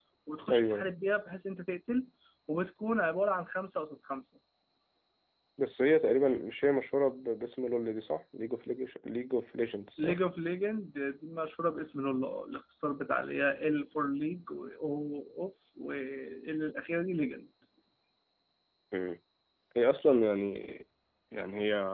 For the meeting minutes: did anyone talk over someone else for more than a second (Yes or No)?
No